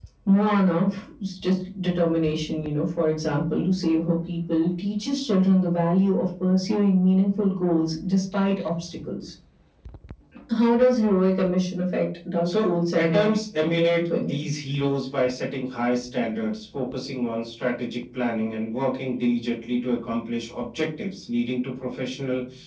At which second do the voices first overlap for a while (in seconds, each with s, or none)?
12.4 s